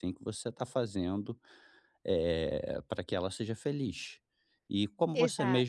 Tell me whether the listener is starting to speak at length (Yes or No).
No